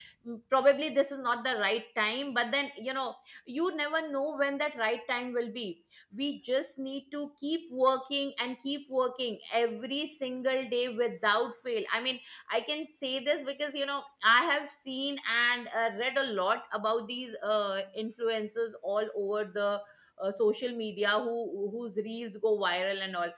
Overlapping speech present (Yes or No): No